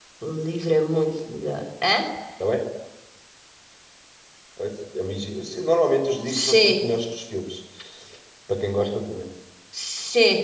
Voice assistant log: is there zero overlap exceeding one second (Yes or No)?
Yes